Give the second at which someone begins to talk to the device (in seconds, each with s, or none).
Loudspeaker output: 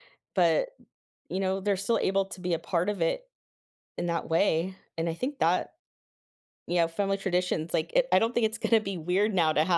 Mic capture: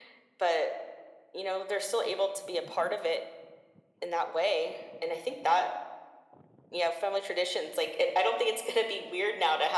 none